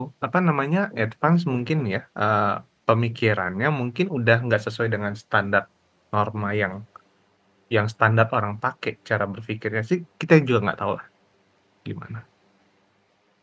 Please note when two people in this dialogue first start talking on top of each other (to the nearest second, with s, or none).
none